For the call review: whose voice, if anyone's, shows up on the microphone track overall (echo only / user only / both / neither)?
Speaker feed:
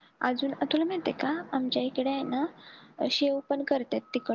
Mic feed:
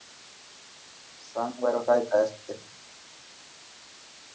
user only